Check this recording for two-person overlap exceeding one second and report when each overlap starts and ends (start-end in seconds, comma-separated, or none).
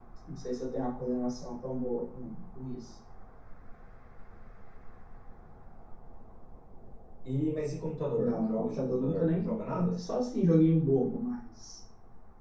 8.2-10.0